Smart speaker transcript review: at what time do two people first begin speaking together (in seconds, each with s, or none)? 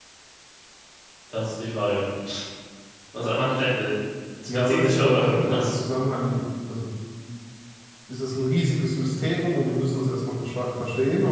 4.5 s